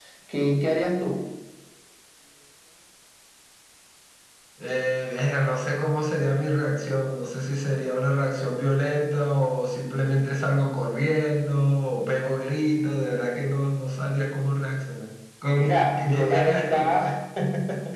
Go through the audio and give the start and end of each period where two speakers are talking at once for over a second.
15.5-16.9

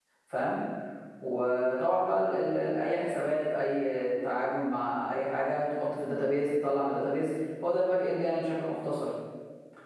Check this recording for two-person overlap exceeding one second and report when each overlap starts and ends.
none

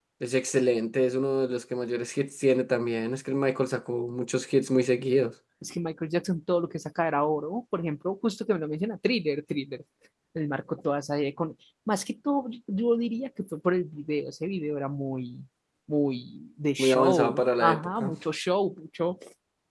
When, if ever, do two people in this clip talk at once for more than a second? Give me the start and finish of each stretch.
16.8-18.1

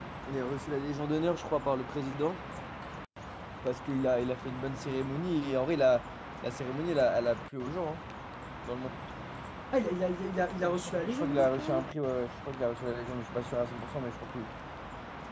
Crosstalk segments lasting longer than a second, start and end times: 10.6-11.9

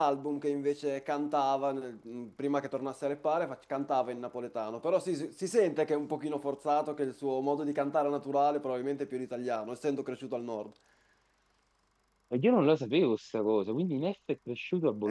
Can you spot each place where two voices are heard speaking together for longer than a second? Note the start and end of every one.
none

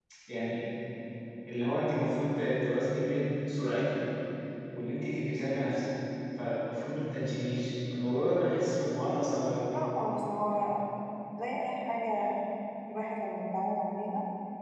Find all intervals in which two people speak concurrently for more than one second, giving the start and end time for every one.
none

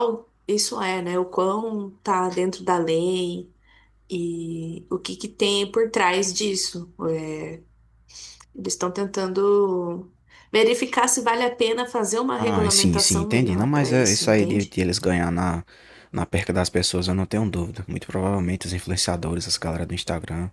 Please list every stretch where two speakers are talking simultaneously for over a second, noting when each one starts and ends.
12.4-14.7

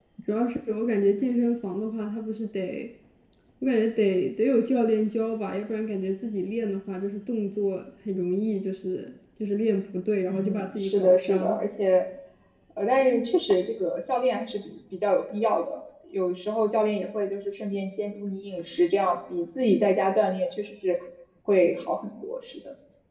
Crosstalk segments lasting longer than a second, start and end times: 10.3-11.6

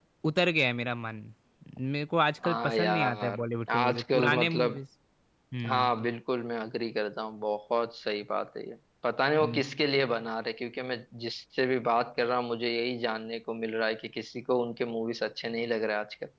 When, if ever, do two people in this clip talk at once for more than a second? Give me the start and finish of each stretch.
2.4-4.8

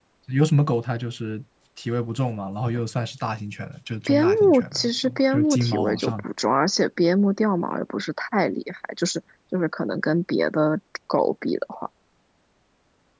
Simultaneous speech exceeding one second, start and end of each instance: 4.1-6.2

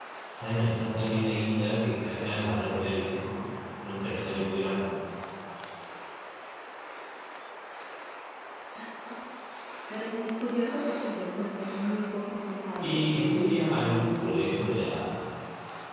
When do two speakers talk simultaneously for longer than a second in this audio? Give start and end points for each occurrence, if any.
12.8-14.6

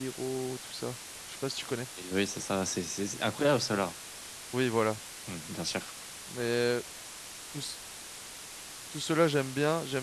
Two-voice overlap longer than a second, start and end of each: none

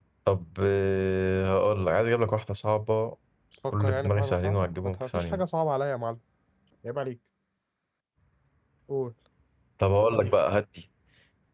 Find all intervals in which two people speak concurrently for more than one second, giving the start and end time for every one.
3.7-5.4

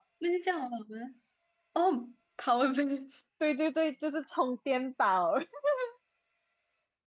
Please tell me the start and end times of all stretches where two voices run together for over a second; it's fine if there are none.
none

